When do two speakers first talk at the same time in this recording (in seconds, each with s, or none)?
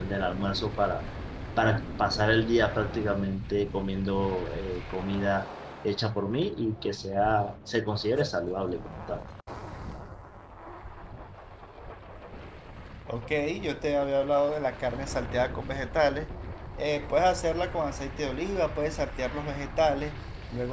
none